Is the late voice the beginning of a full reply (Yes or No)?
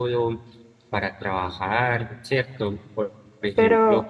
No